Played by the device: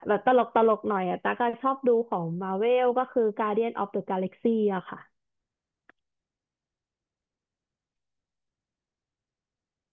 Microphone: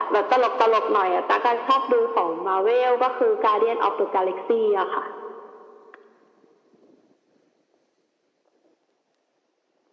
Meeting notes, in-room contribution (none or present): none